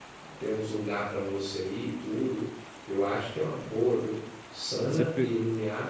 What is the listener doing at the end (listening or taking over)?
listening